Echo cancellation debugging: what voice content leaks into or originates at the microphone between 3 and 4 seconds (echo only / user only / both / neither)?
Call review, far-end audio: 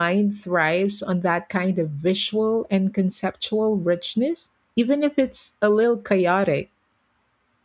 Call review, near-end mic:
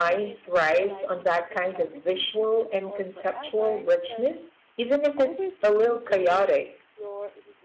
both